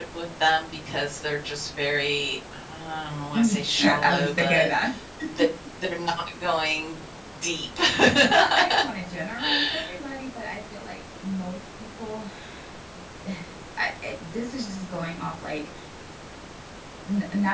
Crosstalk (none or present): present